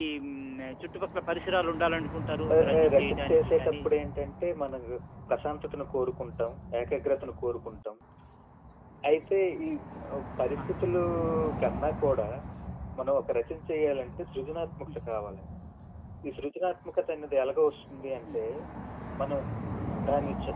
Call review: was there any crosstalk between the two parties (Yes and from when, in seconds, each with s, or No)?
Yes, from 2.5 s